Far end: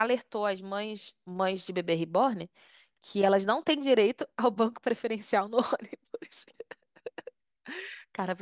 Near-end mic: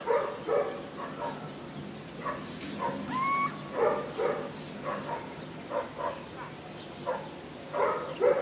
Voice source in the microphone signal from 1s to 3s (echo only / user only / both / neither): neither